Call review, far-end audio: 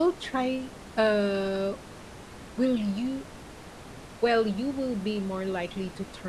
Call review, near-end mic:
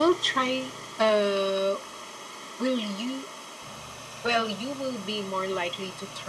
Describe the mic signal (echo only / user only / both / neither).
echo only